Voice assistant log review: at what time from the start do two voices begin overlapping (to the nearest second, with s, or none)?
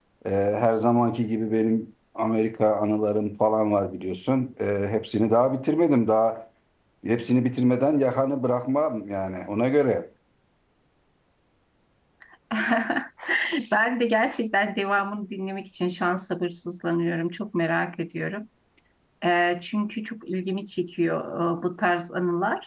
none